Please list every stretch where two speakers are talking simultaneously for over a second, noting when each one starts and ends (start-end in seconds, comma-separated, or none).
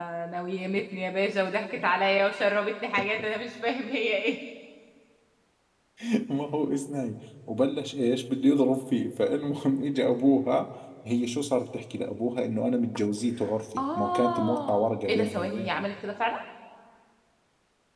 13.8-15.8